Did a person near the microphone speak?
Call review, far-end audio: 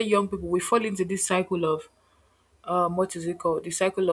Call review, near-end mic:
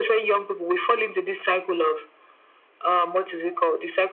No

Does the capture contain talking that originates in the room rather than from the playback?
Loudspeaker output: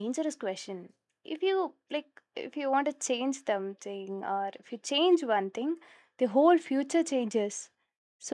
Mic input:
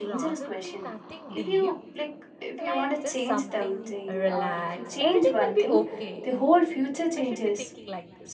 Yes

